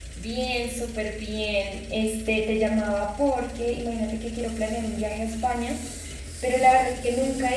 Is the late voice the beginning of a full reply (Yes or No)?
No